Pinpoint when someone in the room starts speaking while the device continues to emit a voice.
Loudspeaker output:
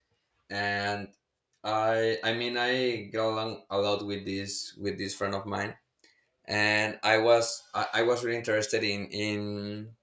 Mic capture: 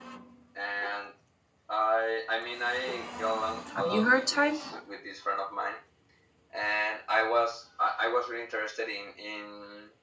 3.7 s

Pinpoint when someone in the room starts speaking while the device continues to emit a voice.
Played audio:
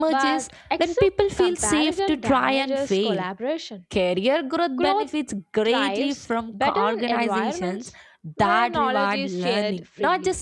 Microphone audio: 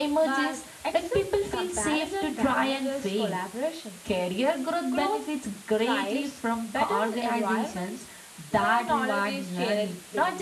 none

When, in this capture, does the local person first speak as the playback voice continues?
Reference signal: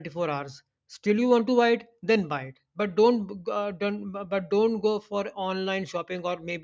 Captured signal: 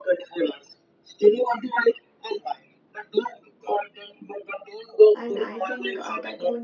5.1 s

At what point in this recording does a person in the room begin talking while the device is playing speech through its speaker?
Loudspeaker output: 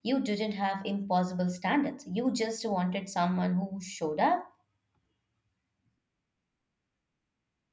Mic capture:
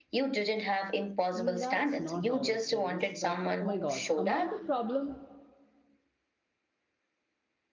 1.3 s

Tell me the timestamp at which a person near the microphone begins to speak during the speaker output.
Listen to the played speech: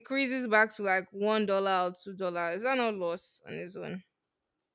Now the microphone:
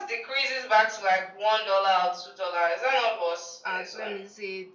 3.6 s

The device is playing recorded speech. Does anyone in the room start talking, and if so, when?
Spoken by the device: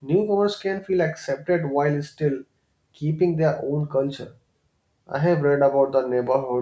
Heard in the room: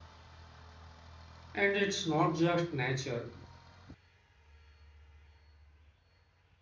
1.5 s

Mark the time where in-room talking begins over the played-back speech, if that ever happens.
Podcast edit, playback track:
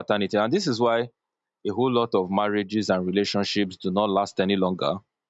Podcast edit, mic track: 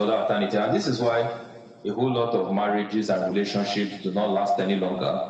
none

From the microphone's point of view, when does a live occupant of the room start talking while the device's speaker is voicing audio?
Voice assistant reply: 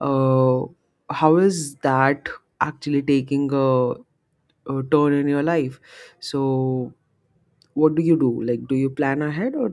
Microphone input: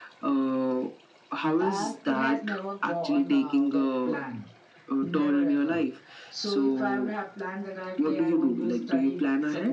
1.6 s

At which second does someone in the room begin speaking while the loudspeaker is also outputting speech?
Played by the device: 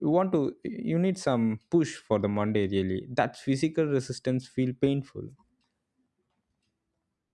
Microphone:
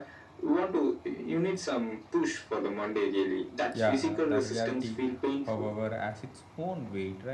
3.7 s

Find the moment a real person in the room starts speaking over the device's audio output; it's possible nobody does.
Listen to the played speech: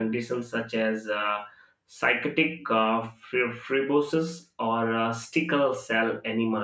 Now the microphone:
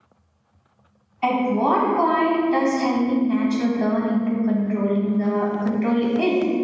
1.3 s

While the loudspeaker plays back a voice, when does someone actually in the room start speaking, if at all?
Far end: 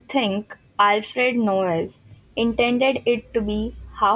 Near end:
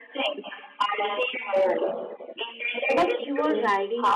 2.9 s

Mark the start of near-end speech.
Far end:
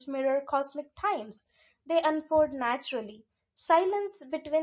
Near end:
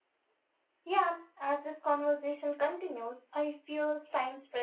0.8 s

